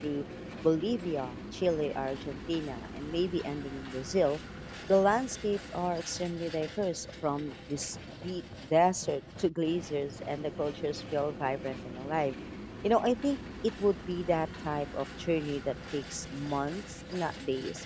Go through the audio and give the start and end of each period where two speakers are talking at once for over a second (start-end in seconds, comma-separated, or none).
none